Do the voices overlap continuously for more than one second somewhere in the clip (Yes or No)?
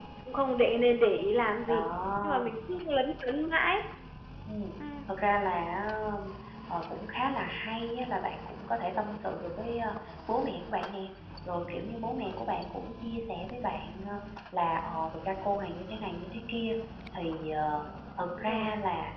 No